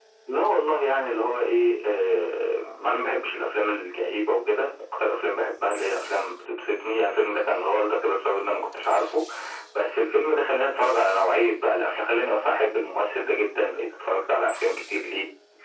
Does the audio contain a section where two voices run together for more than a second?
No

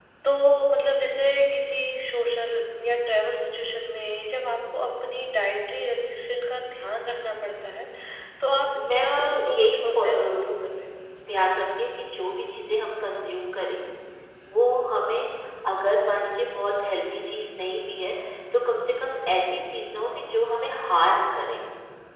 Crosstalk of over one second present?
Yes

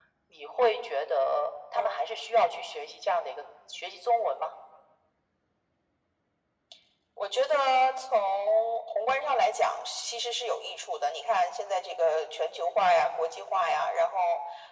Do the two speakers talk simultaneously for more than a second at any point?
No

